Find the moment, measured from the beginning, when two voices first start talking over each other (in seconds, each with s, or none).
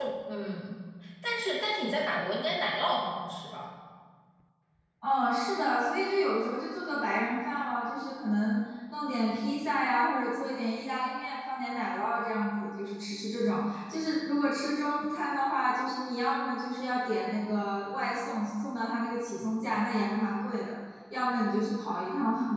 none